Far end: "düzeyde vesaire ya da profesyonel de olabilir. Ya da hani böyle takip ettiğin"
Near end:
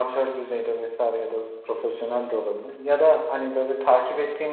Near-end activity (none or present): none